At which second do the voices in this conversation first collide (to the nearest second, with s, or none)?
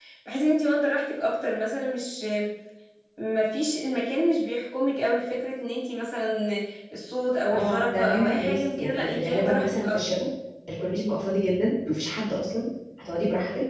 8 s